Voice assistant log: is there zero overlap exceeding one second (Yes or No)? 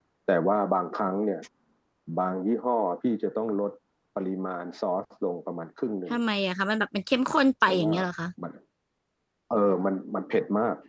Yes